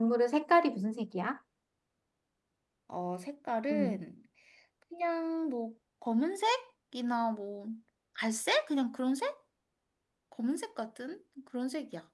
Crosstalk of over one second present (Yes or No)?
No